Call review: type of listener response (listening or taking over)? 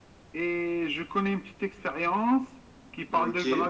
listening